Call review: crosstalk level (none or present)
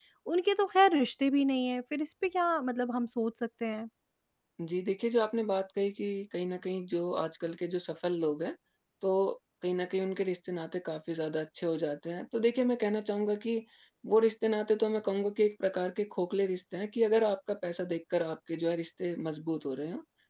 none